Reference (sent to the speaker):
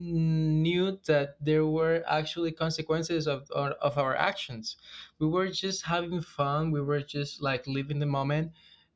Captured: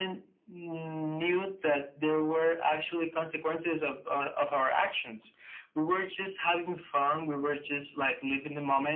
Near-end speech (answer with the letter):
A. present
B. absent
B